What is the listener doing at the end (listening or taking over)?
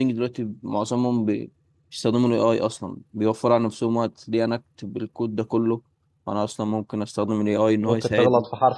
taking over